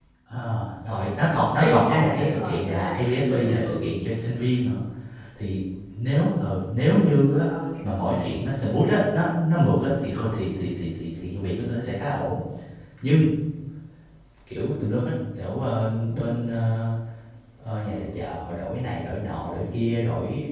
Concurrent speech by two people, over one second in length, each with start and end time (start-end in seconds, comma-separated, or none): 1.5-3.9